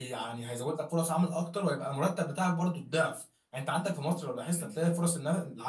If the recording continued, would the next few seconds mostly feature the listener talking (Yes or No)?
No